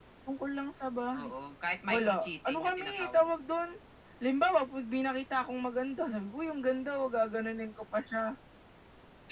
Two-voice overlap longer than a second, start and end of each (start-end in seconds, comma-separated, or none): 1.9-3.3